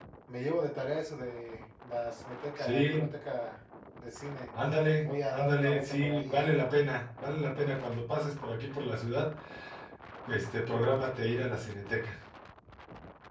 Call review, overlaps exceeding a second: present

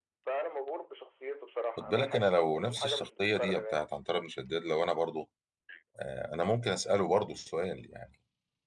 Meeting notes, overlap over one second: present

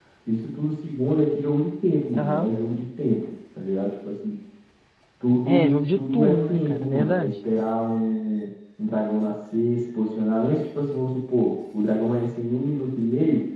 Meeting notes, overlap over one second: present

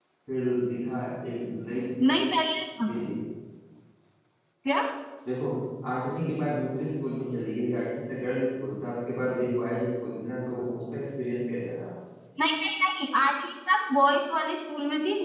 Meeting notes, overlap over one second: none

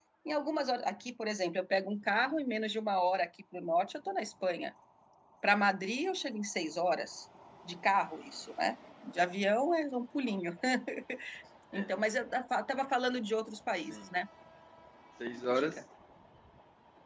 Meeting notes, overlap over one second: none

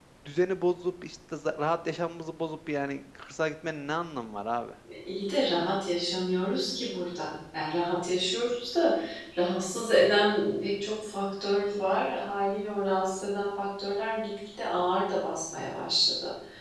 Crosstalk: none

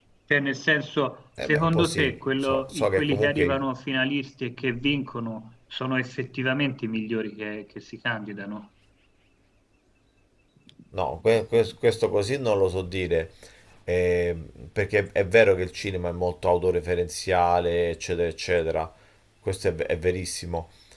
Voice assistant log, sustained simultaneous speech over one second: present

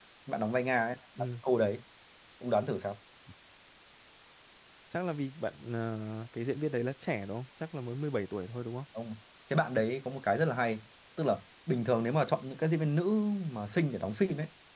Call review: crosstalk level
none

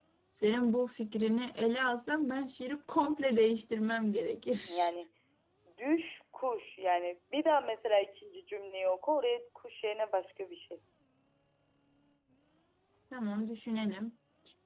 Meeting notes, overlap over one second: none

